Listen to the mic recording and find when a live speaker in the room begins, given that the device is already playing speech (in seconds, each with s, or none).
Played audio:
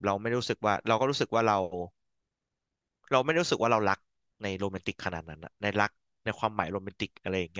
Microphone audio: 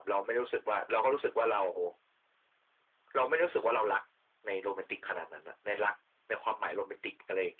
none